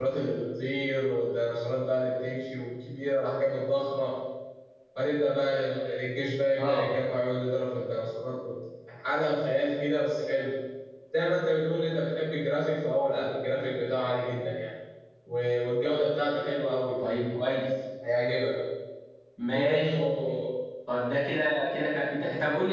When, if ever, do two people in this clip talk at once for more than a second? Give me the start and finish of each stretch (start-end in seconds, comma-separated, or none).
none